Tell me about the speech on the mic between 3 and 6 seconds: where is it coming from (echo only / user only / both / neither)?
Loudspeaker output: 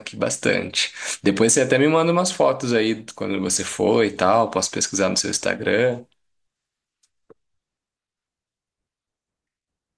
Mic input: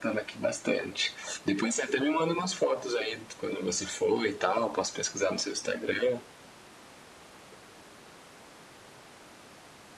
echo only